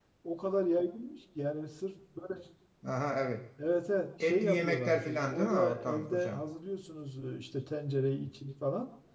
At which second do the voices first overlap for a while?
4.2 s

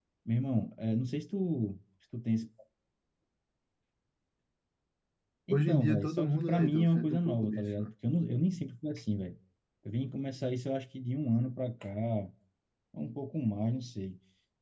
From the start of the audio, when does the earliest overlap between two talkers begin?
5.5 s

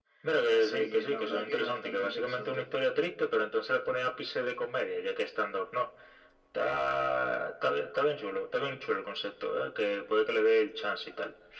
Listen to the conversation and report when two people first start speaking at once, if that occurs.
0.5 s

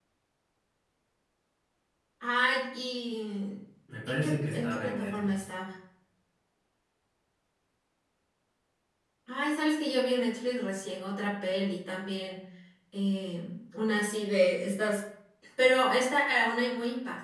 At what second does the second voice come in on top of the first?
4.0 s

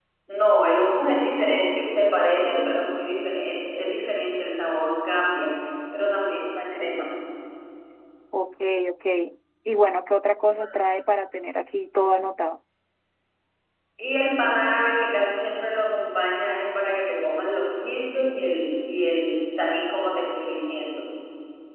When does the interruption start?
none

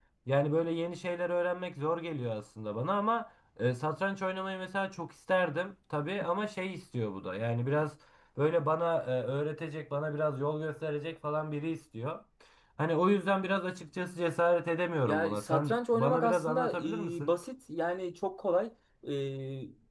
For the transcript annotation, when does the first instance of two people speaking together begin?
15.1 s

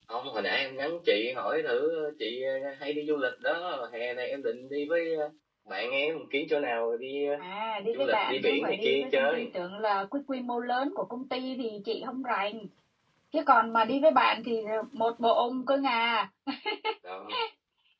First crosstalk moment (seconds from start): 7.9 s

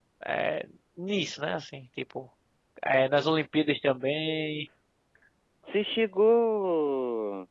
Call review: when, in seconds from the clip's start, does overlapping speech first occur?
none

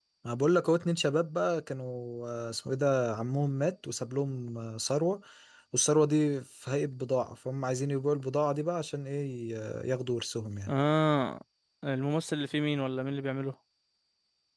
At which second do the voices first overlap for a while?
none

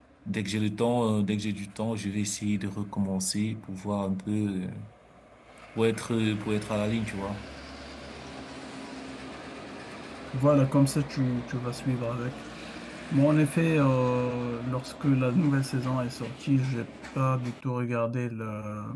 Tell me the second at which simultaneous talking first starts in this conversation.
none

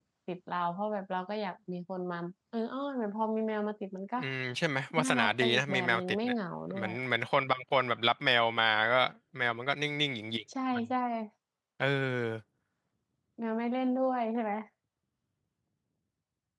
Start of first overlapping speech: 5.0 s

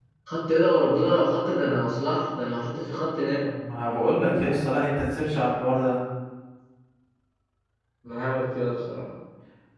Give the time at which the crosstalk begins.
none

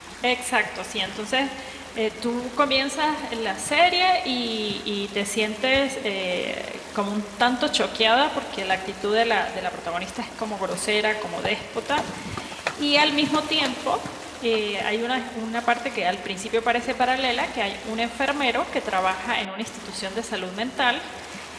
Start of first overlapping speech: none

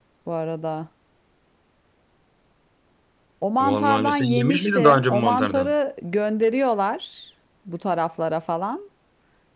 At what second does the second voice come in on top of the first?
3.6 s

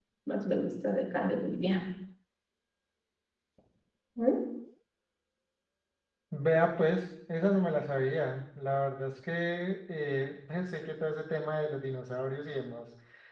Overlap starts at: none

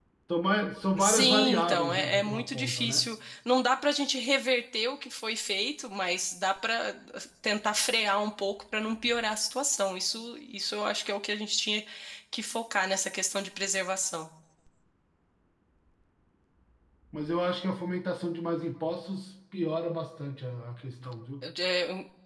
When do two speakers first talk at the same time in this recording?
1.0 s

